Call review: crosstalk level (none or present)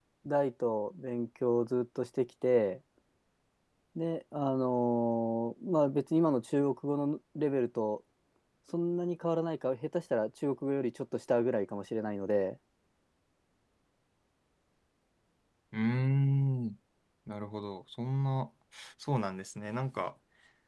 none